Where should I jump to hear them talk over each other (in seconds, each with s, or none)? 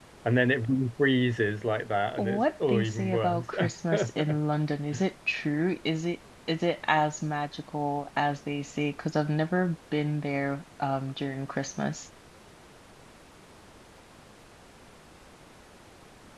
2.2 s